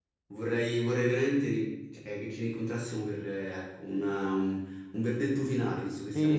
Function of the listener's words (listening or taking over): taking over